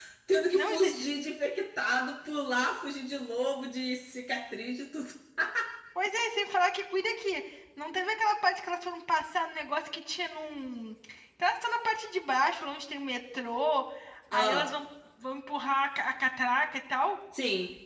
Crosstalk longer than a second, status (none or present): none